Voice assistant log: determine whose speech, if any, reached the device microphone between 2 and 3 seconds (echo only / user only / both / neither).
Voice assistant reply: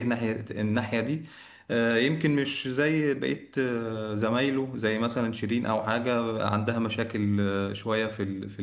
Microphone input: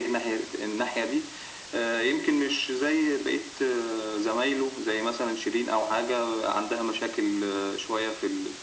echo only